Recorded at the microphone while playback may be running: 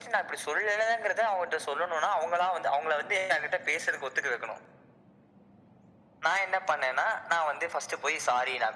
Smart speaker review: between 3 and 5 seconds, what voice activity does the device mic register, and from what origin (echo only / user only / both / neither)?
echo only